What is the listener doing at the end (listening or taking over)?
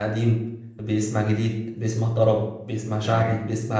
listening